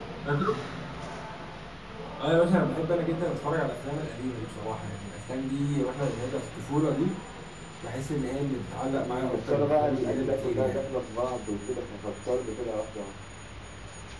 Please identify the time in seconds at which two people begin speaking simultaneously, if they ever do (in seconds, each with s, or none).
9.0 s